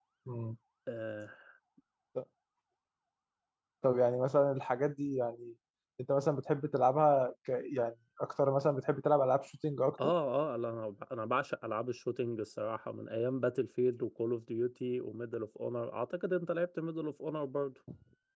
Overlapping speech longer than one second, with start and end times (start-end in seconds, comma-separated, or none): none